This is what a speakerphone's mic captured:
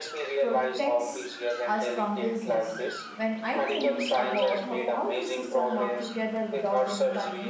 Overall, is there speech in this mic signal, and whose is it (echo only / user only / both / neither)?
both